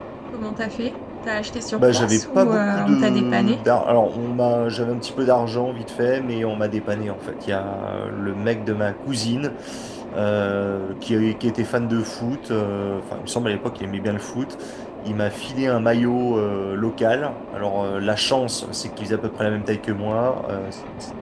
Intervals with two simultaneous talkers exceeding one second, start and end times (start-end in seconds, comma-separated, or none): 1.8-3.6